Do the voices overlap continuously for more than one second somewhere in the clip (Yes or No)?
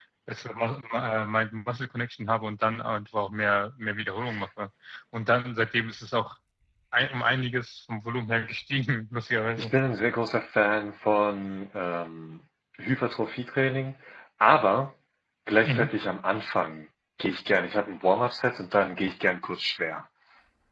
No